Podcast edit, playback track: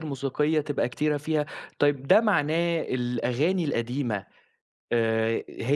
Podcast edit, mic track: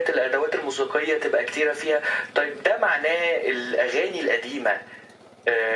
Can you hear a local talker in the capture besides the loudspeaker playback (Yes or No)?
No